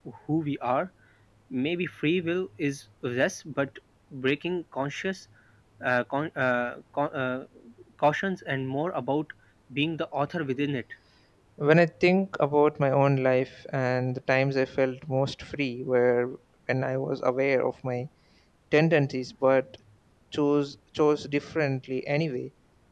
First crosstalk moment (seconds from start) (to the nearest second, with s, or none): none